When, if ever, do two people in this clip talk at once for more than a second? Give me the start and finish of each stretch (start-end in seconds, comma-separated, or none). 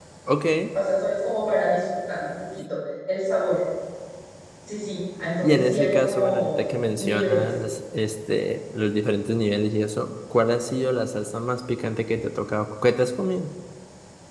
5.4-7.5